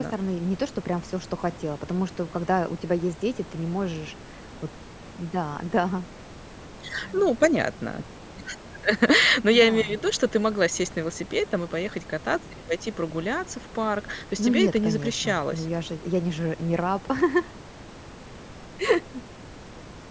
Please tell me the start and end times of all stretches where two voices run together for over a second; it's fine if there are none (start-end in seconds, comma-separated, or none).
14.4-15.7